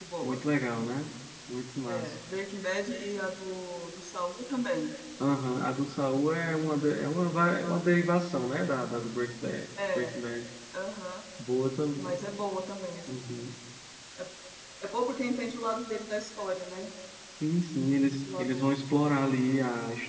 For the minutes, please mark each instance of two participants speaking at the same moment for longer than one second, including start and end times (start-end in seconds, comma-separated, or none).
none